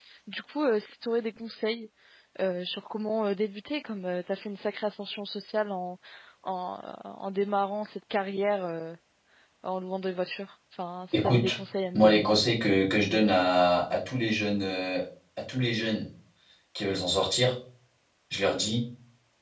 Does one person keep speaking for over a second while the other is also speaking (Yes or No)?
No